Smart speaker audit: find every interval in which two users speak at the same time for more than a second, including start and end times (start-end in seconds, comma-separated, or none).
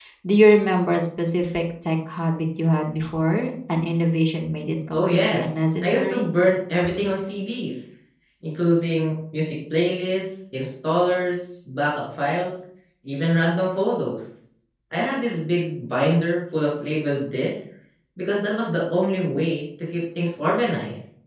4.9-6.3